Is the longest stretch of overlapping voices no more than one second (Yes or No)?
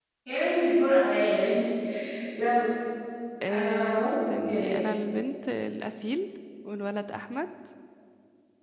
No